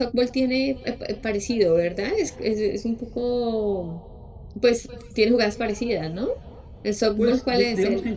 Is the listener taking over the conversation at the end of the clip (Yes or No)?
Yes